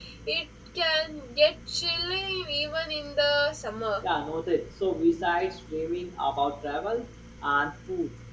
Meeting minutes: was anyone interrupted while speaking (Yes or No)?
No